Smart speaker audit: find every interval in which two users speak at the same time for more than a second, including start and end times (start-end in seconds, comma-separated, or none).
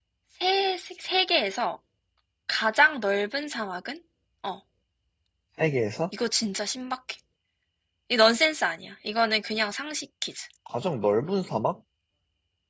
none